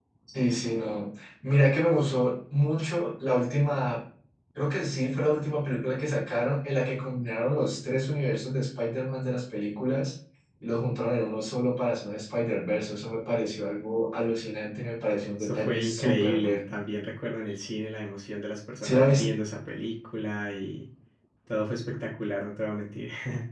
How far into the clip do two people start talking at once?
15 s

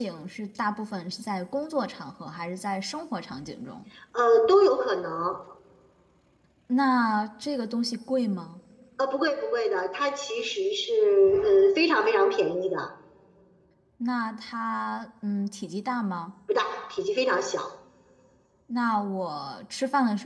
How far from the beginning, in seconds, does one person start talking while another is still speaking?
none

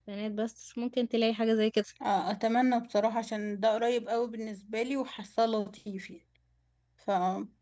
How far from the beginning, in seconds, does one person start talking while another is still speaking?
none

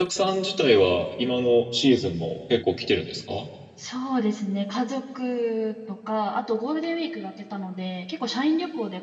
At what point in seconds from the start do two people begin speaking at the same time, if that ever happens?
none

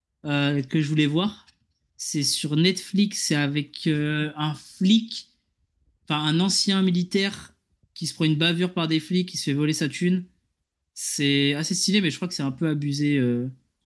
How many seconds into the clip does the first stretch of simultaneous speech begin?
none

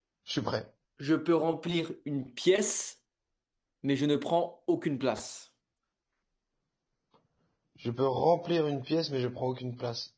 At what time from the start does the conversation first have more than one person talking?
none

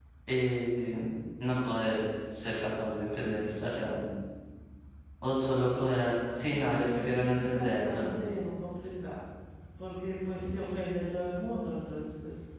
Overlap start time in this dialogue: 6 s

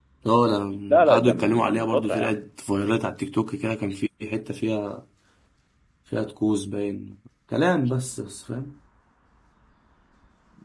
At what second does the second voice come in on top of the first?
1 s

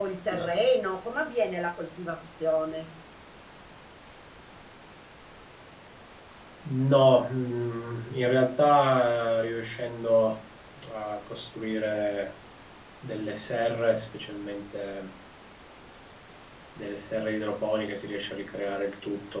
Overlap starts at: none

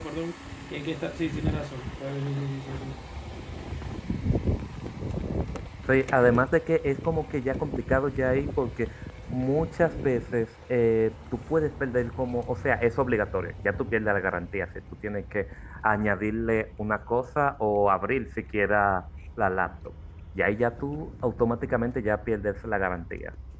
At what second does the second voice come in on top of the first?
none

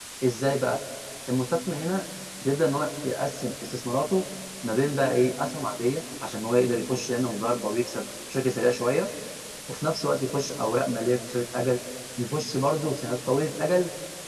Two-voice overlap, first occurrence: none

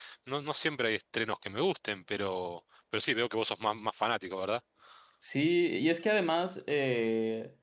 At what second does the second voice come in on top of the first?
none

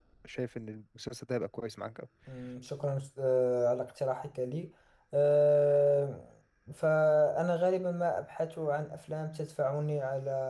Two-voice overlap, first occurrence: none

